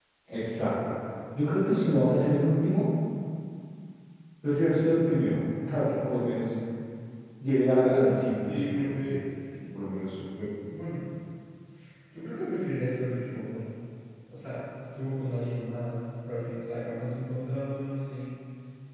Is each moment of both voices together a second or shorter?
No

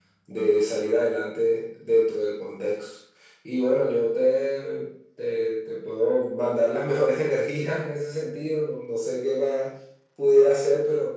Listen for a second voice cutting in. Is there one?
No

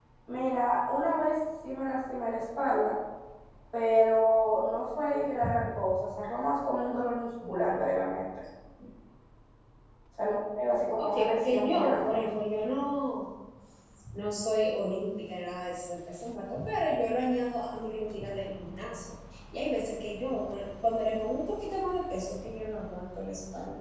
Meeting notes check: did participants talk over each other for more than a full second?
Yes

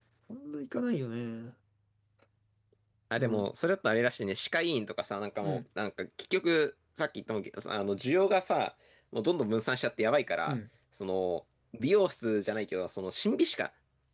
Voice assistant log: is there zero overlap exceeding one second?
Yes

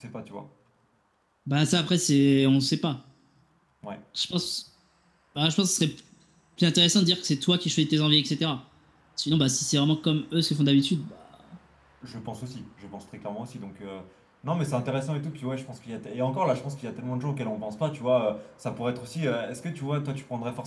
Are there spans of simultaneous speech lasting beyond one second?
No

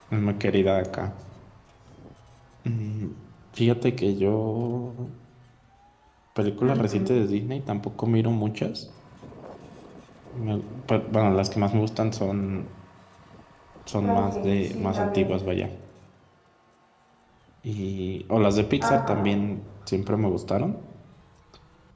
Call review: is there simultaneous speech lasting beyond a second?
Yes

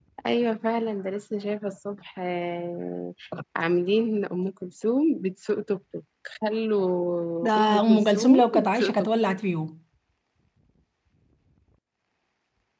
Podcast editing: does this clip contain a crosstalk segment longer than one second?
Yes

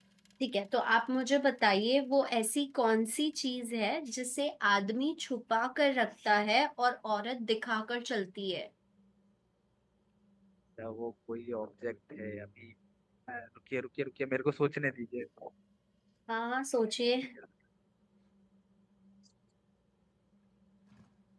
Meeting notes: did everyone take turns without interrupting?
Yes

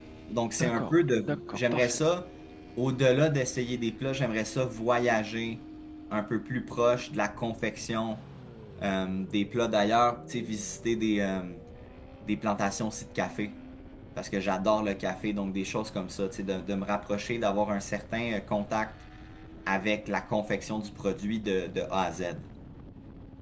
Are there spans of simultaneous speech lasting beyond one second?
Yes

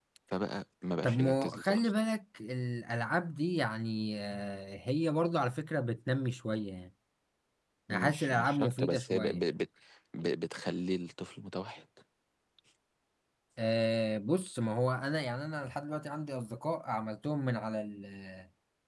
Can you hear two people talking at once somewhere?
Yes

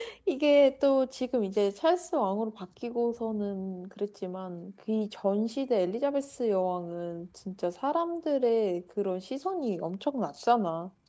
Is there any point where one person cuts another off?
No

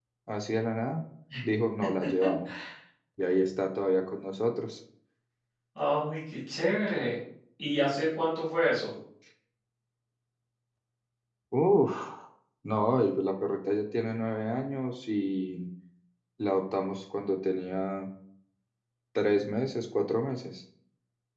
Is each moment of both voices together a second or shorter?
Yes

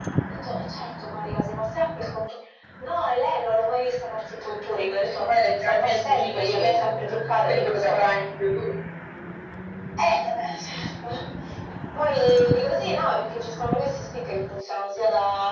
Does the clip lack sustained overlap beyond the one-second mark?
No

